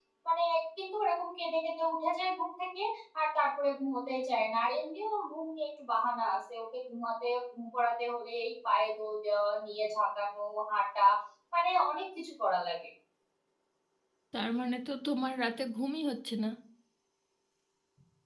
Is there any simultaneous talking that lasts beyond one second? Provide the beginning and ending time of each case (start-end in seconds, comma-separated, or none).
none